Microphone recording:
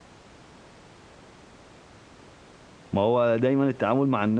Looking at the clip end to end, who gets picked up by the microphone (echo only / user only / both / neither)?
user only